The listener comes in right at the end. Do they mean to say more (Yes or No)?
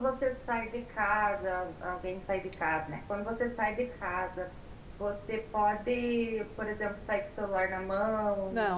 Yes